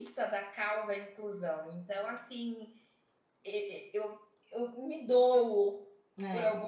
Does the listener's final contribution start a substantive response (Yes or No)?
No